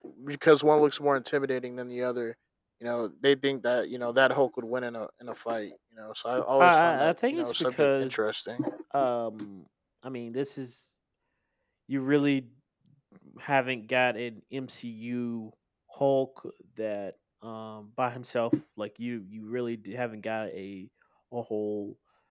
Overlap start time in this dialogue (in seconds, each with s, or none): 6.6 s